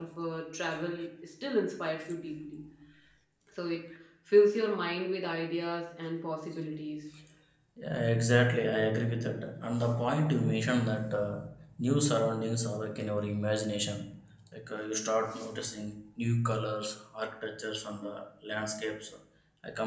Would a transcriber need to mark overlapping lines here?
No

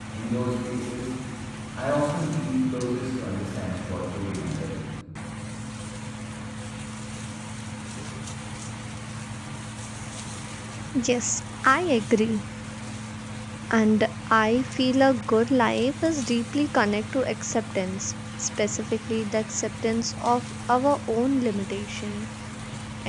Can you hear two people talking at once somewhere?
No

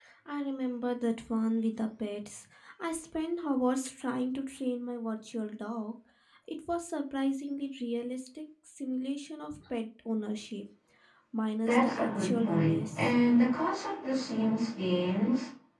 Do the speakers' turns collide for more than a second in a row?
Yes, from 11.6 s

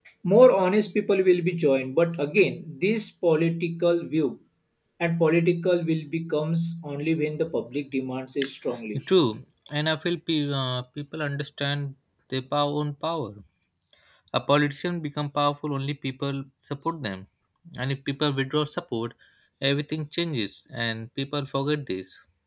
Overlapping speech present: No

